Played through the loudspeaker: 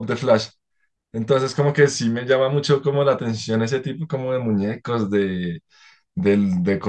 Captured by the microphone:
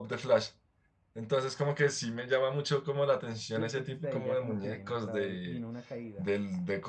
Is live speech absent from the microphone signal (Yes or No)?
No